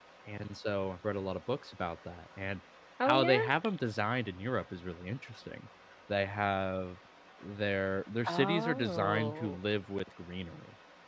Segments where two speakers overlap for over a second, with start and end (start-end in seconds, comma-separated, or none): 8.3-9.6